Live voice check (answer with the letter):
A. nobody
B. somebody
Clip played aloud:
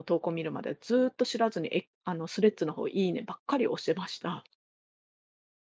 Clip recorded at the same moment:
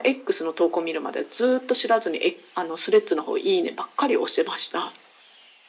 A